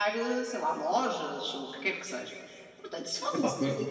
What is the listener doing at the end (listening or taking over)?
taking over